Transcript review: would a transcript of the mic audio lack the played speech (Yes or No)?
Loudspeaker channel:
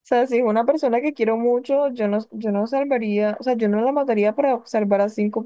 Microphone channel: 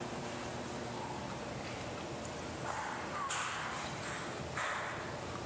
Yes